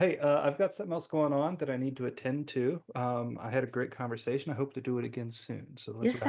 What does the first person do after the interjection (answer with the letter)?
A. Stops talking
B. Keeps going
A